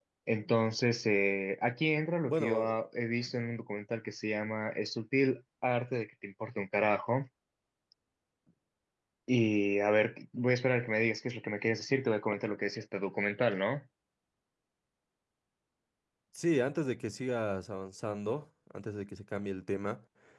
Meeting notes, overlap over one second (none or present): none